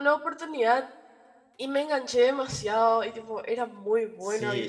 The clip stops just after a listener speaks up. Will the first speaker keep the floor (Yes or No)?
No